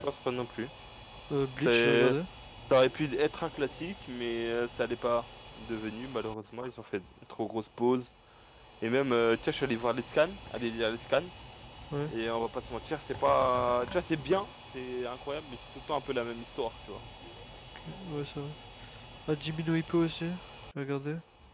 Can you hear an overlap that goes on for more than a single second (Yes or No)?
No